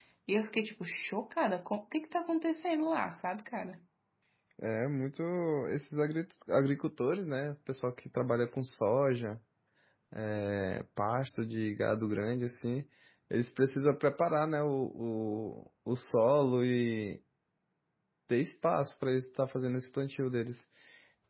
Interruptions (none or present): none